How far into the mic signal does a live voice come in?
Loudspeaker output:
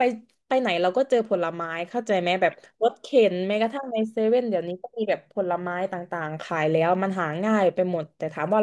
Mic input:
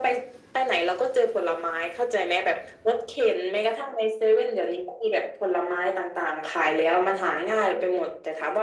none

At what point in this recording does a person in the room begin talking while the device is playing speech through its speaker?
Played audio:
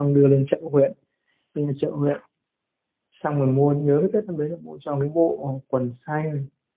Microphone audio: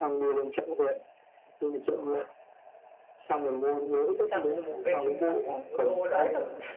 4.2 s

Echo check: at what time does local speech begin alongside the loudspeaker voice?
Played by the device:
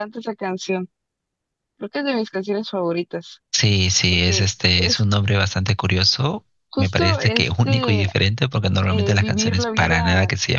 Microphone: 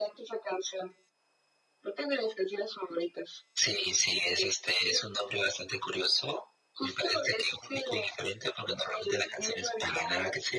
none

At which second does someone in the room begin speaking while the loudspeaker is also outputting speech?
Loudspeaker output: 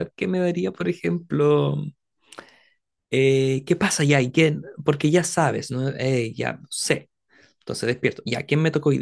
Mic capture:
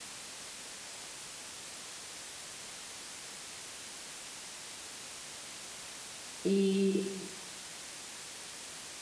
6.4 s

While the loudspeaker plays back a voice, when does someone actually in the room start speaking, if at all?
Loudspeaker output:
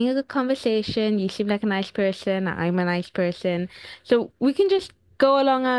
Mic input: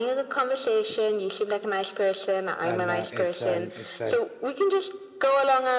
2.6 s

